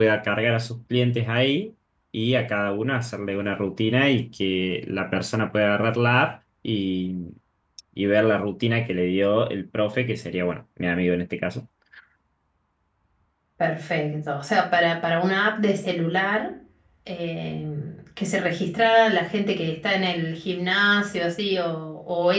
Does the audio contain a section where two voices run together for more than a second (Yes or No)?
No